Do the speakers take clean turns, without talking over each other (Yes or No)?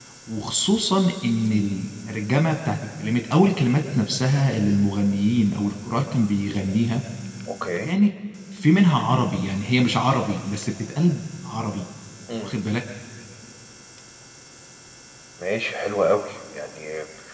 Yes